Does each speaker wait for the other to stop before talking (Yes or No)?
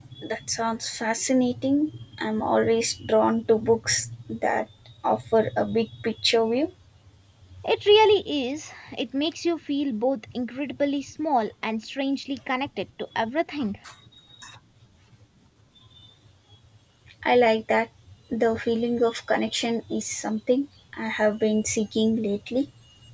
Yes